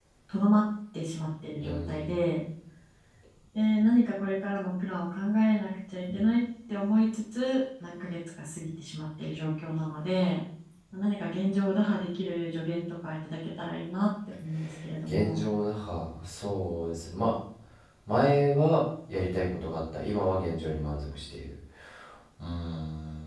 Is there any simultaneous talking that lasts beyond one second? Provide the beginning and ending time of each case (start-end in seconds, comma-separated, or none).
none